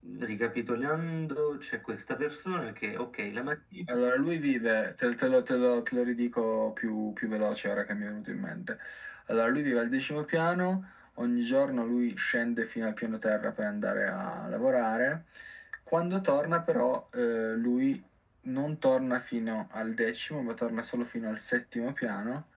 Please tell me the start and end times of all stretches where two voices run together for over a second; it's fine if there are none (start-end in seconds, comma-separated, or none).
none